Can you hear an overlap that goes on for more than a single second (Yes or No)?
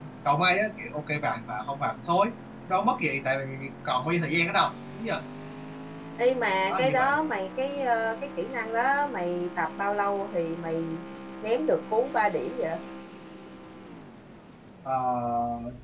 No